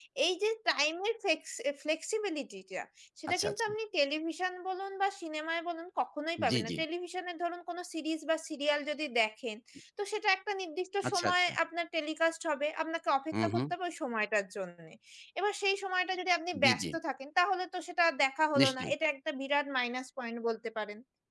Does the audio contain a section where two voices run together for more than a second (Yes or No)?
No